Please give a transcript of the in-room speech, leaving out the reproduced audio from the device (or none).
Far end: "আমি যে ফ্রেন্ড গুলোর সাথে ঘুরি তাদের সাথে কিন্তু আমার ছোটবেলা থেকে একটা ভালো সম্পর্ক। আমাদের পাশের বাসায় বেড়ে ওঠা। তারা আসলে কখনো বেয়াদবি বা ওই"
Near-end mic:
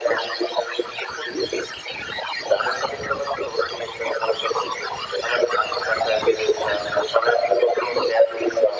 none